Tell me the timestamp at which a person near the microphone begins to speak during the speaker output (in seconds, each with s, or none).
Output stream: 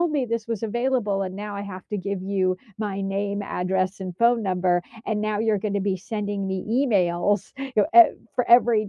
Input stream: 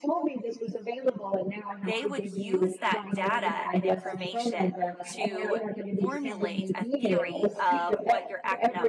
1.8 s